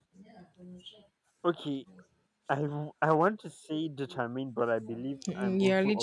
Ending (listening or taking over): taking over